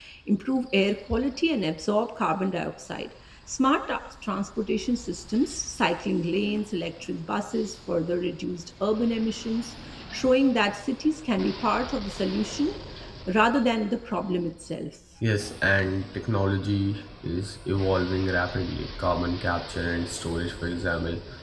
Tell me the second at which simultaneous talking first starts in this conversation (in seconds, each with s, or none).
none